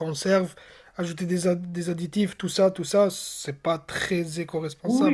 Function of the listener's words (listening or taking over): taking over